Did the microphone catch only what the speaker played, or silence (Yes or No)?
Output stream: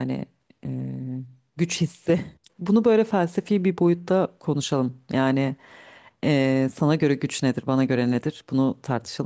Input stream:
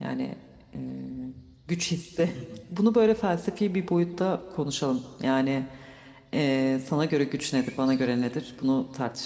No